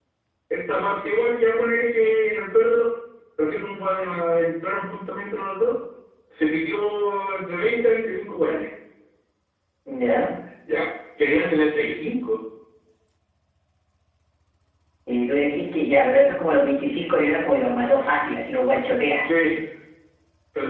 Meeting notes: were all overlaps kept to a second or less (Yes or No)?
Yes